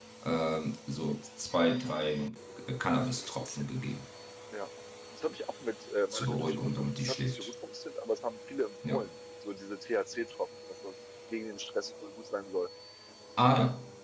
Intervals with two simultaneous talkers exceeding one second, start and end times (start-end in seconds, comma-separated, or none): 6.1-7.5